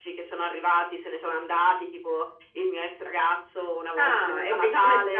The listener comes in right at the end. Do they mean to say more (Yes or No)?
Yes